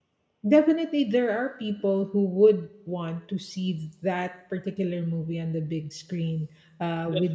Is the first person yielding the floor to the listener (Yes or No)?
No